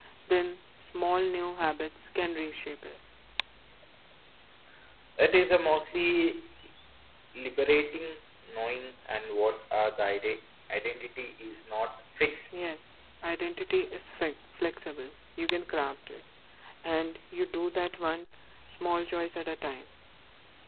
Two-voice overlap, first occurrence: none

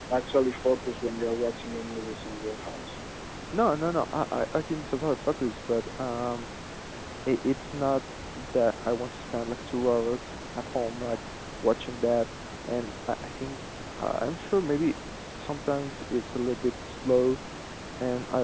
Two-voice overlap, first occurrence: none

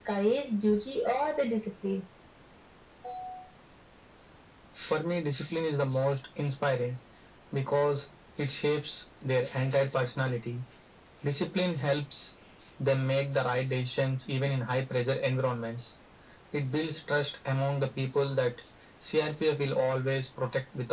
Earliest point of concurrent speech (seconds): none

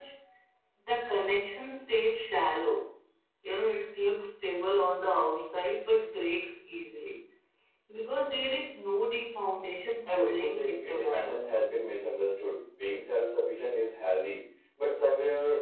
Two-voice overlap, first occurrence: 10.1 s

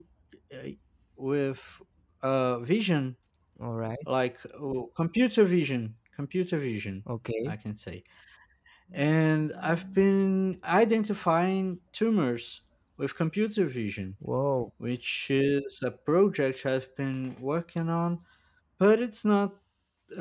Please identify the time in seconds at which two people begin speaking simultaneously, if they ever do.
none

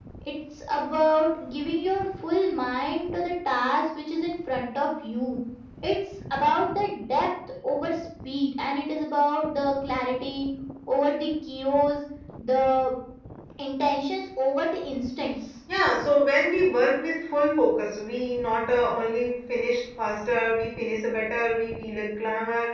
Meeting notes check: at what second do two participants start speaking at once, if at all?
none

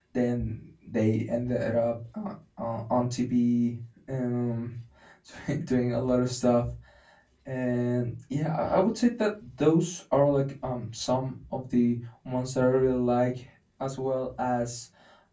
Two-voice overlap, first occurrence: none

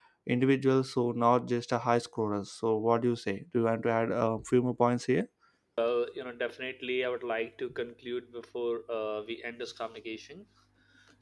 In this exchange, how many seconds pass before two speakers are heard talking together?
none

